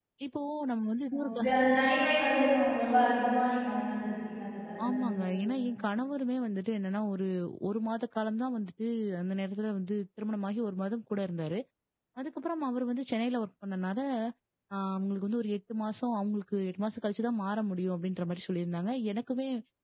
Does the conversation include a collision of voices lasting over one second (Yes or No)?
No